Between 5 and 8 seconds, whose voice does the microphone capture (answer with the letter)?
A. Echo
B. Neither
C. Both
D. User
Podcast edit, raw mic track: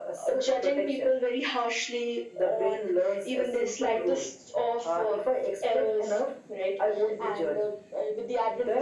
A